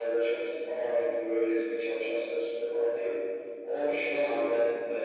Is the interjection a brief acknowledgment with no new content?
Yes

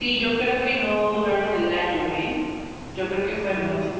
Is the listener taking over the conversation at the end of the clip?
No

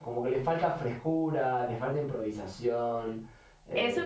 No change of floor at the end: No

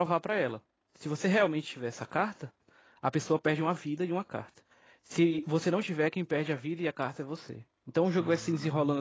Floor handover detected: No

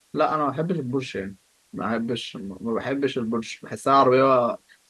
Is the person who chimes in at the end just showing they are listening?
Yes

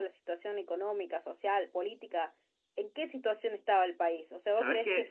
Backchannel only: Yes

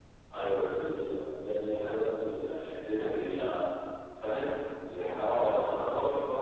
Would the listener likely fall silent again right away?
No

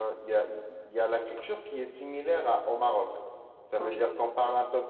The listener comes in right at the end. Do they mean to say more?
No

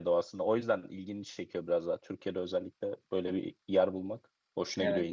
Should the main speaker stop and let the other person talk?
Yes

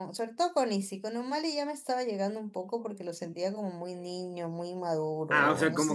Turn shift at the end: Yes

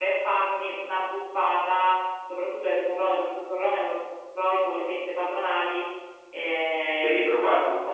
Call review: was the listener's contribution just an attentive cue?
Yes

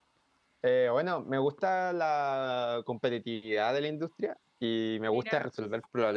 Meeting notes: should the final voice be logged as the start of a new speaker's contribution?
No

